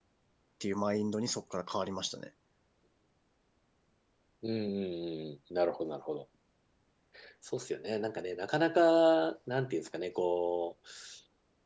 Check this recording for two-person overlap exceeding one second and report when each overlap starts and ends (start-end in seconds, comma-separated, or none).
none